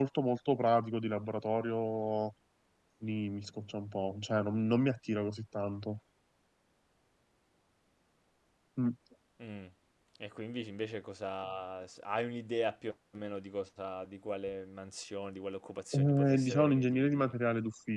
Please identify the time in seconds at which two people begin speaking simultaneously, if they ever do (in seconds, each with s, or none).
15.9 s